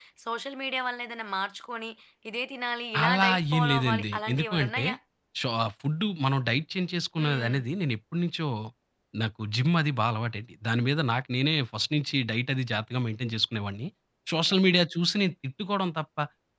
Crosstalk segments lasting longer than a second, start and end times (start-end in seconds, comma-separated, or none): 3.0-4.8